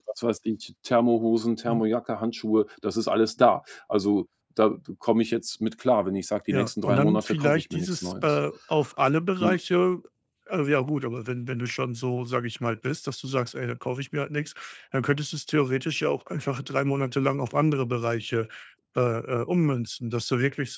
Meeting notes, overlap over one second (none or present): present